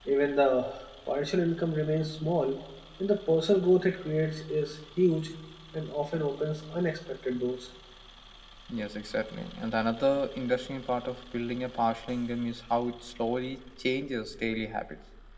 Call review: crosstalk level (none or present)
none